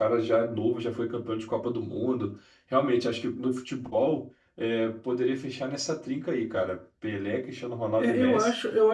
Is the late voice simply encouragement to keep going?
No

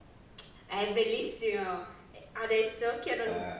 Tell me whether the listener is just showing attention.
Yes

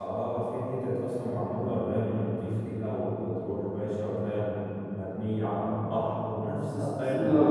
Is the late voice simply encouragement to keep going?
No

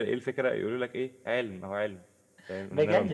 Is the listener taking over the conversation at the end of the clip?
Yes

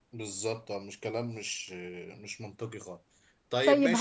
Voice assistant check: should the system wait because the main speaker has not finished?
No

